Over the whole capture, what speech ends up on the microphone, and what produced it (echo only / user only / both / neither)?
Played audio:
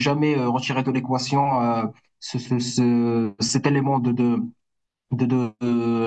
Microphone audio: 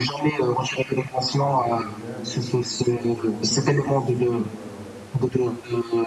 both